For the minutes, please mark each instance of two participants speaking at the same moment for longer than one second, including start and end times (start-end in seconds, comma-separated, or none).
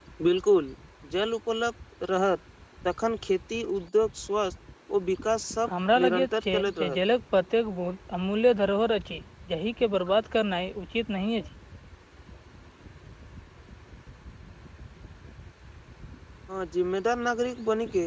5.7-7.0